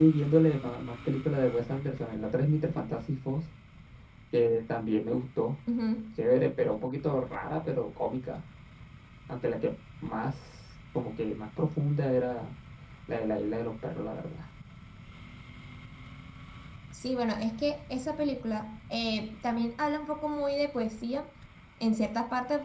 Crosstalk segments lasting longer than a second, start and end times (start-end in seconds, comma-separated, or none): none